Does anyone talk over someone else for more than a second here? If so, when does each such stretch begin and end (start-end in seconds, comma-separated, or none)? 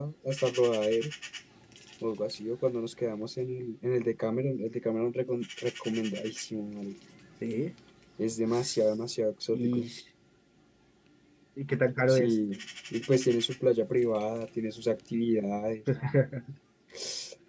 none